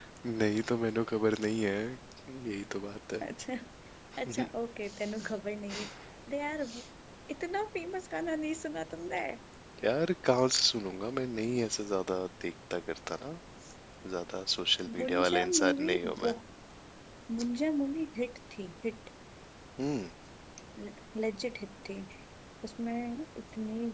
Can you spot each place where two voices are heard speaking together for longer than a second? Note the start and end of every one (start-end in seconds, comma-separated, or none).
15.0-16.3